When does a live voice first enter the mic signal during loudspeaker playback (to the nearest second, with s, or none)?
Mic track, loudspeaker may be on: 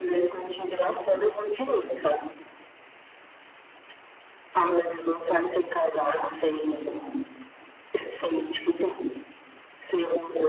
none